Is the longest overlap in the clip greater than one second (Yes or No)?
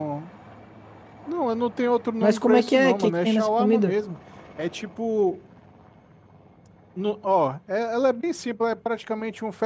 Yes